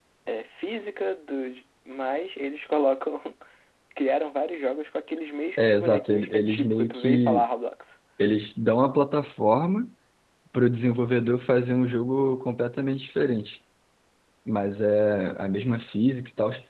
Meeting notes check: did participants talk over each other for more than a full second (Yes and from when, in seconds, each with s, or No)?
Yes, from 5.6 s